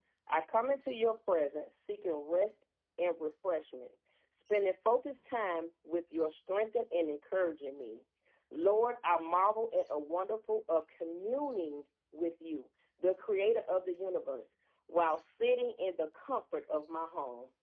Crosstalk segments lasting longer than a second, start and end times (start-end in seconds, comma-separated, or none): none